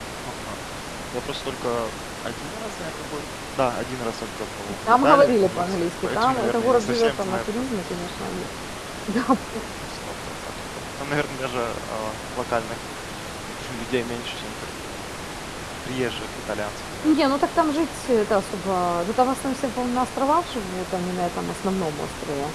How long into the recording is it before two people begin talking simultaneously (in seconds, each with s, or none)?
4.9 s